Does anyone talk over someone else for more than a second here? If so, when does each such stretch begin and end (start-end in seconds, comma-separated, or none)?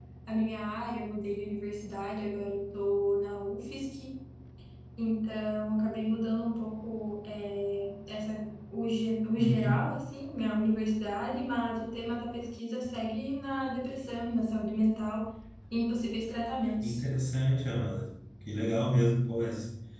none